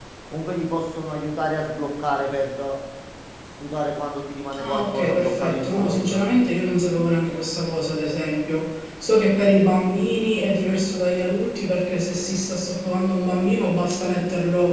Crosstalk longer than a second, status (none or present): present